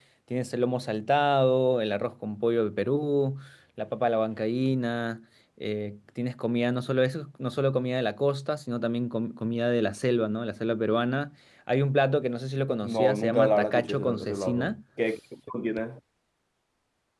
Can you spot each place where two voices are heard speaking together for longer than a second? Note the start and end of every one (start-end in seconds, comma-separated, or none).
12.8-14.7